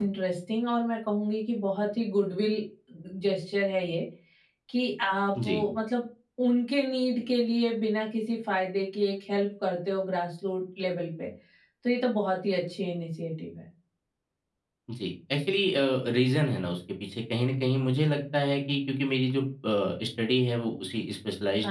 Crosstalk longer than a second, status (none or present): none